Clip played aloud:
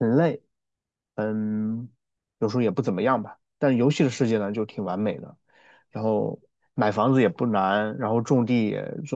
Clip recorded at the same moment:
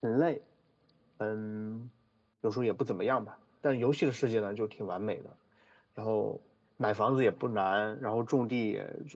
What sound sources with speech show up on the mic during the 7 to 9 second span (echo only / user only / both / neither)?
echo only